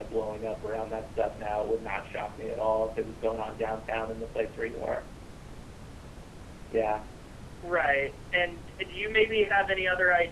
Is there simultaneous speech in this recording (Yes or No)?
No